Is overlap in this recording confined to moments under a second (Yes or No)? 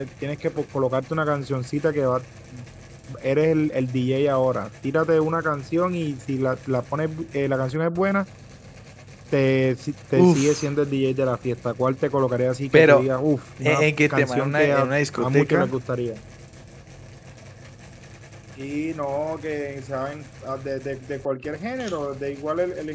No